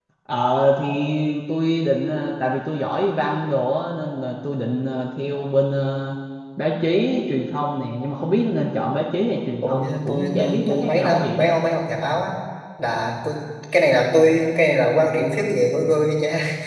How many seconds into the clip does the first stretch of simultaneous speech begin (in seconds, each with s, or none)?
9.6 s